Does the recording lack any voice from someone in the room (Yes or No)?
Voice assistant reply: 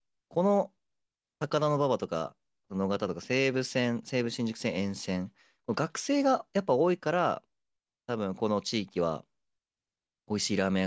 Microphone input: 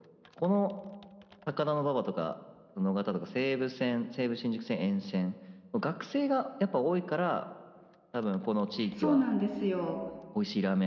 No